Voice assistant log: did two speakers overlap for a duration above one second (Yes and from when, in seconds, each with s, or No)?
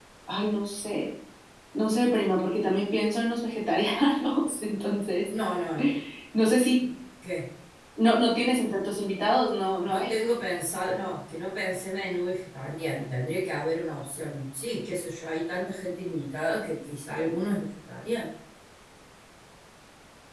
No